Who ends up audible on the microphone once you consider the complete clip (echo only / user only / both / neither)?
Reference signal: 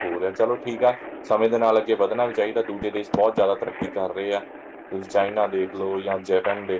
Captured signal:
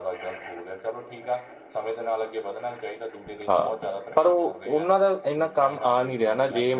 both